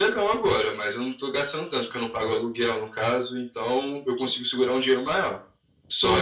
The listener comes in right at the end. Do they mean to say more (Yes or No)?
No